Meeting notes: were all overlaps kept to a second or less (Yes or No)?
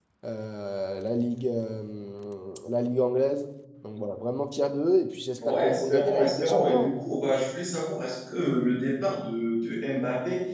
No